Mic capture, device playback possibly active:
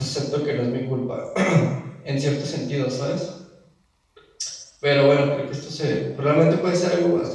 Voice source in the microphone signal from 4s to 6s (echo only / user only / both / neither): user only